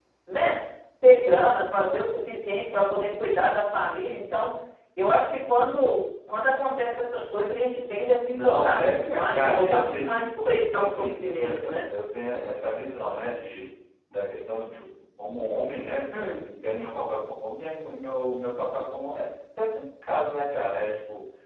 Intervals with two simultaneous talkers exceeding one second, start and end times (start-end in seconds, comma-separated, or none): 8.3-11.8